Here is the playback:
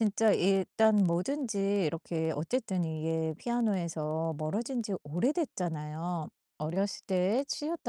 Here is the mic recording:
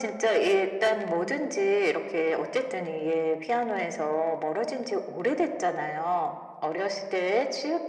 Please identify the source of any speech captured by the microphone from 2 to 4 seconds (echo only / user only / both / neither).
echo only